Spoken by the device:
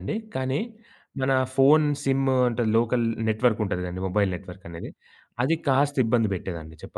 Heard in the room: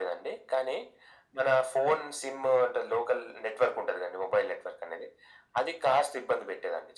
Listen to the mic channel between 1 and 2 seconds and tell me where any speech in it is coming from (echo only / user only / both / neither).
echo only